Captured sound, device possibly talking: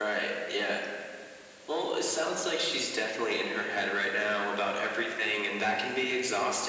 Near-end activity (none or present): none